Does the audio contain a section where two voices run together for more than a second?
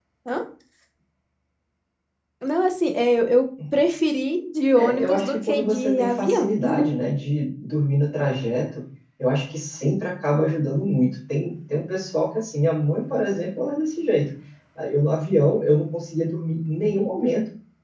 Yes, from 4.7 s

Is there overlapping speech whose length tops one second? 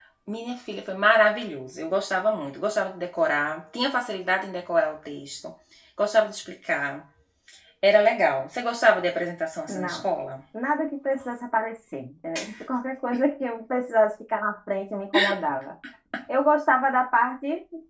No

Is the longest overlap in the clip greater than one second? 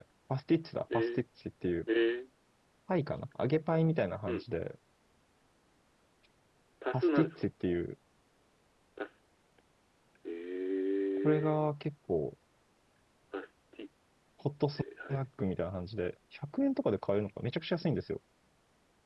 No

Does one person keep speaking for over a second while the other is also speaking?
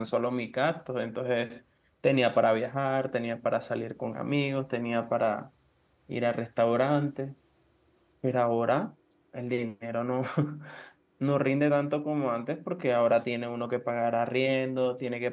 No

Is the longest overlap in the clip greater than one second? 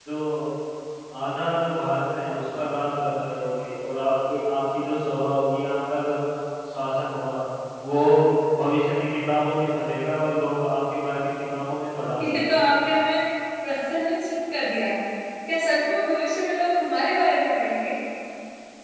No

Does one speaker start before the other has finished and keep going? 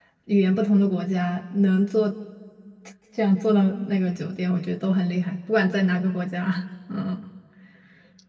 No

